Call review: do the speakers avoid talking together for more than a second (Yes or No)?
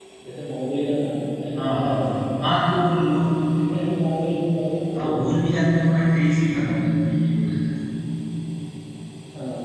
Yes